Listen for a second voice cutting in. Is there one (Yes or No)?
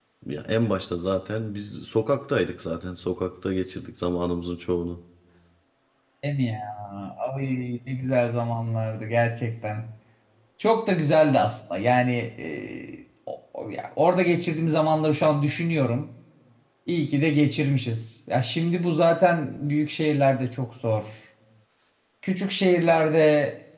No